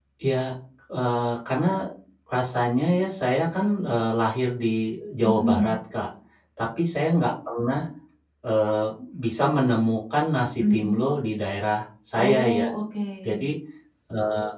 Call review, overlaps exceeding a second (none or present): none